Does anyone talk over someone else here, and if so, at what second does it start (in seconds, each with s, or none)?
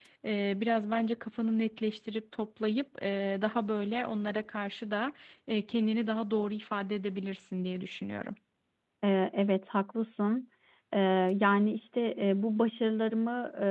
none